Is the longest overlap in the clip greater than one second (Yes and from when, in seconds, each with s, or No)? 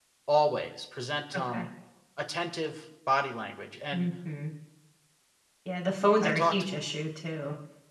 No